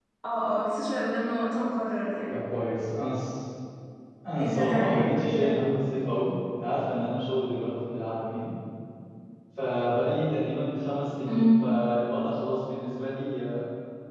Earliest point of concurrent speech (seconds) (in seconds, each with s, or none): 4.4 s